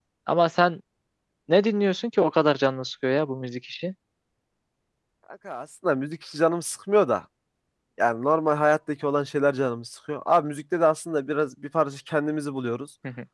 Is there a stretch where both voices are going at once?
No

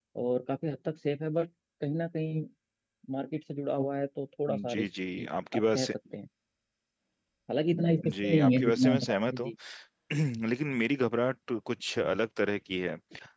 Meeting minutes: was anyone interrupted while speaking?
Yes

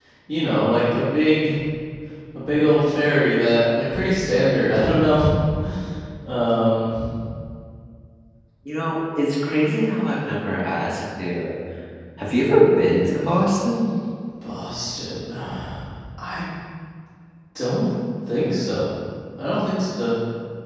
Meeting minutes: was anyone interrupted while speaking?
No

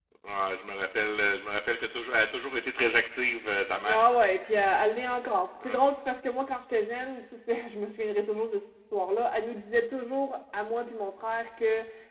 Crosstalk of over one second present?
No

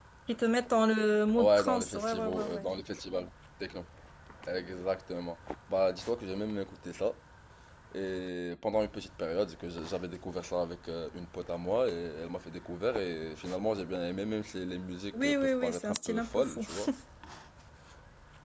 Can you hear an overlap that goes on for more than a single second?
Yes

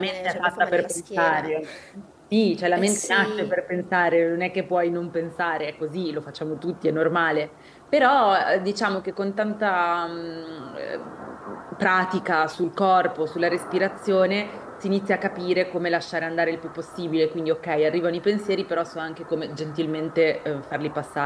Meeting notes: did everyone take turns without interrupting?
No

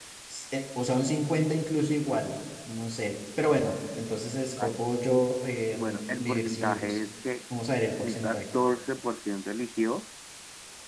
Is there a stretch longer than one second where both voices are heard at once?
Yes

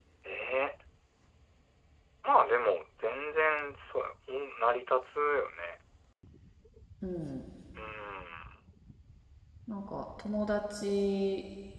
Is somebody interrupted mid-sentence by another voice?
No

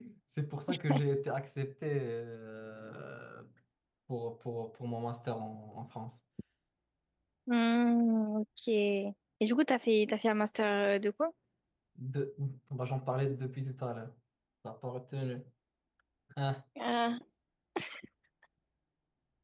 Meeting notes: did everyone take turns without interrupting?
Yes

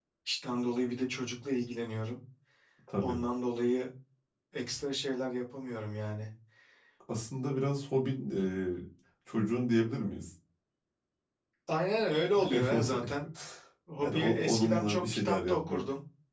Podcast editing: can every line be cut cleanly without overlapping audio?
No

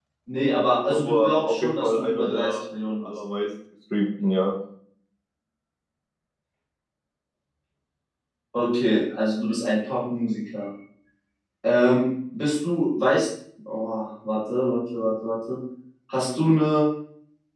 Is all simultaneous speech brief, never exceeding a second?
No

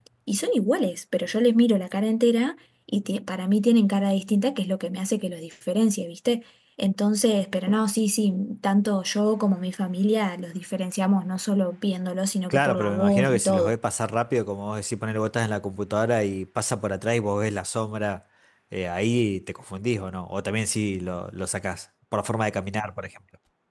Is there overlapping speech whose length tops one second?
Yes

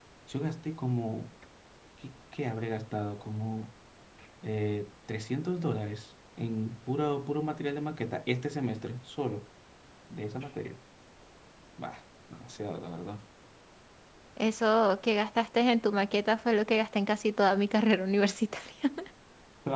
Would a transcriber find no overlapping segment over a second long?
Yes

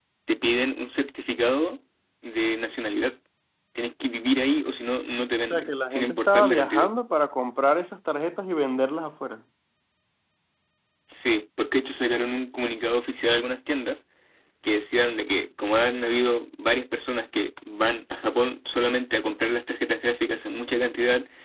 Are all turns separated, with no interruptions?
No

